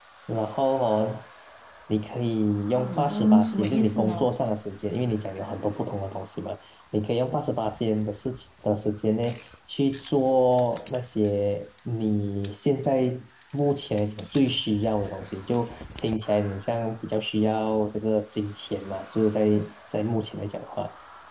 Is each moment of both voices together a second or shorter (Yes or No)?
No